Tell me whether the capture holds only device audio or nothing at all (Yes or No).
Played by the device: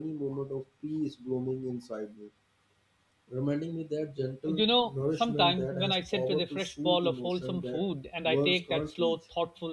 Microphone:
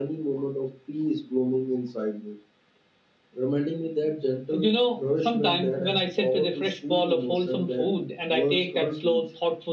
Yes